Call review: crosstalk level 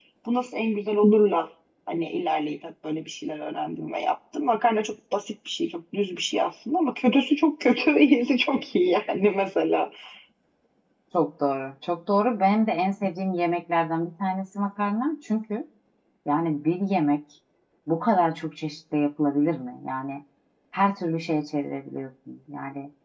none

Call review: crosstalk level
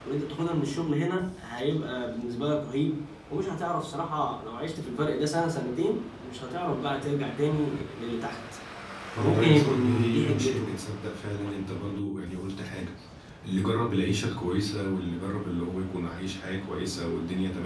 present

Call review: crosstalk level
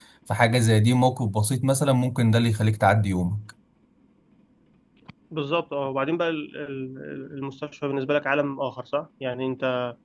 none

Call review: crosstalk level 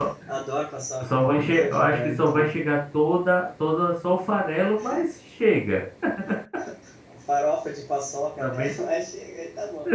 present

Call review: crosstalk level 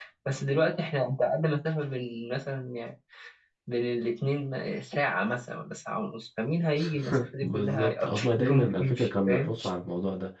present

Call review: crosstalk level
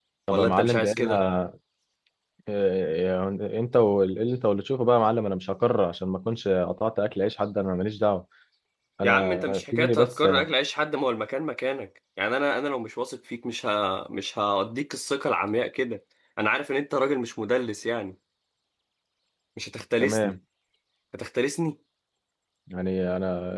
present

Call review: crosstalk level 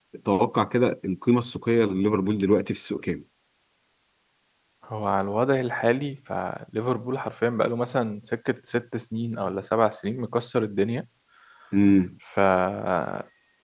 none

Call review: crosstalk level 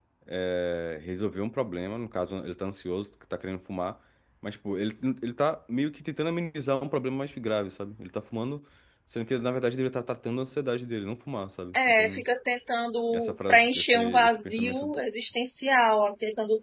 present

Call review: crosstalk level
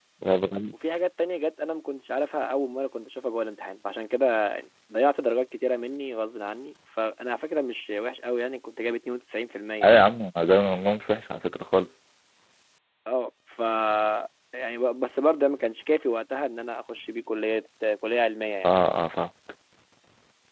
none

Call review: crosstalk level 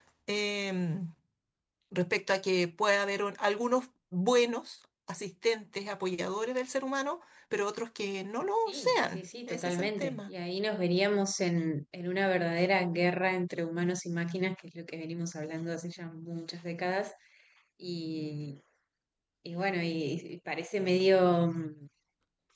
present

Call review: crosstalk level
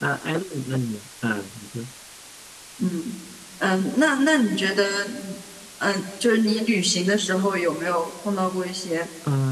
none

